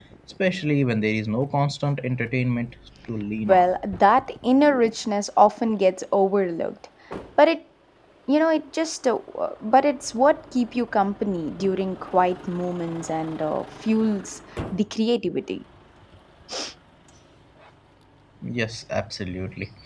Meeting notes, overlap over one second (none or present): none